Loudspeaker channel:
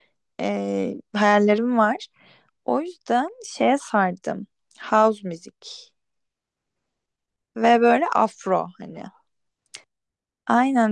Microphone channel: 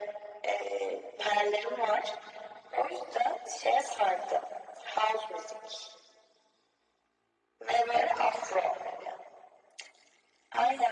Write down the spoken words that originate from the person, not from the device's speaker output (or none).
none